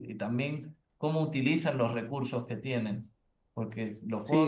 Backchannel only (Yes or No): No